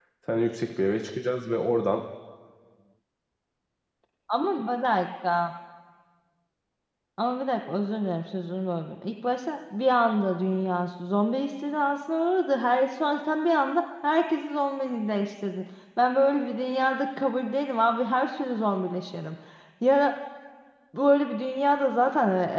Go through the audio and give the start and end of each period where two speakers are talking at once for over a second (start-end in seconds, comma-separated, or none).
none